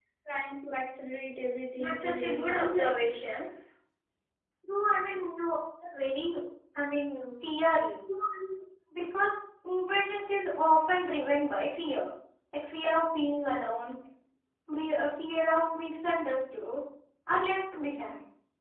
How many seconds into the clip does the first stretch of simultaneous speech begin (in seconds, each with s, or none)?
1.8 s